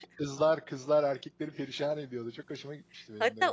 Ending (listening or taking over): taking over